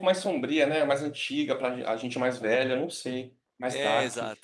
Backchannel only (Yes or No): No